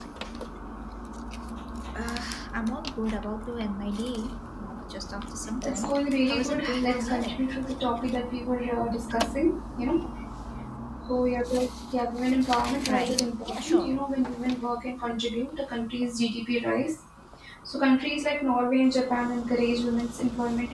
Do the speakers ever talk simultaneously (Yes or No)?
Yes